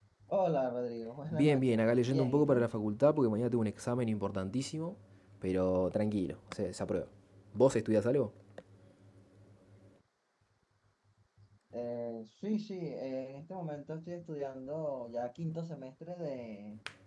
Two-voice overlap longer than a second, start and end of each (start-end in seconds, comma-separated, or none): 1.3-2.7